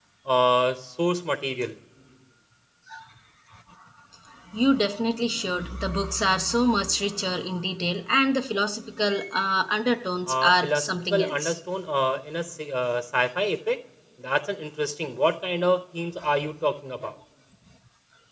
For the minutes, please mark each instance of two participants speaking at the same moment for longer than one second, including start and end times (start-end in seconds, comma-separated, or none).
10.3-11.5